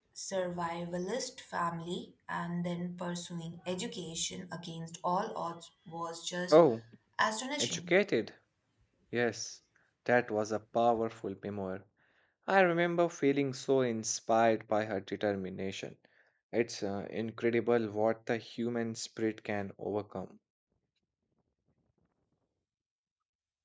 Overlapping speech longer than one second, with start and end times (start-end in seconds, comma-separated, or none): none